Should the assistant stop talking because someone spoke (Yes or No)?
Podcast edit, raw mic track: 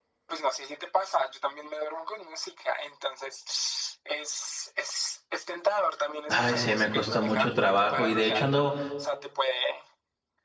Yes